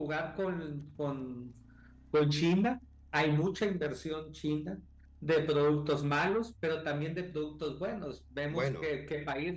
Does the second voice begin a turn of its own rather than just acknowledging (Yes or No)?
No